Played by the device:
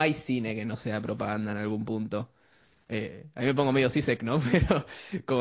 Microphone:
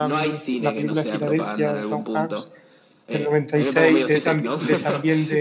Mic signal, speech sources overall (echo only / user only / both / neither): both